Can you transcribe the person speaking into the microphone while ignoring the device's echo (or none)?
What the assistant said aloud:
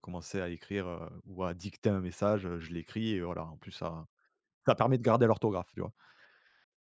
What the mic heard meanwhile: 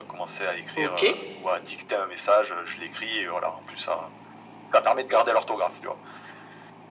OK